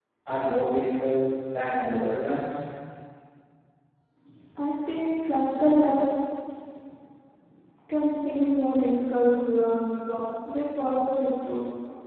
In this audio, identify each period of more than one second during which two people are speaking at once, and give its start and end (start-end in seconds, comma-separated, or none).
none